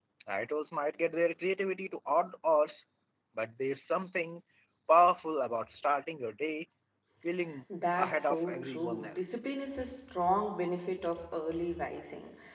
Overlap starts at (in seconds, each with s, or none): 8.0 s